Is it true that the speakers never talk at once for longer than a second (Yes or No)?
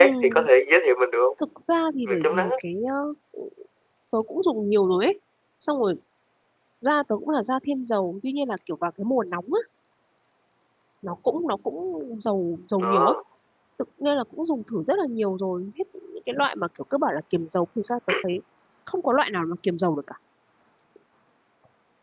Yes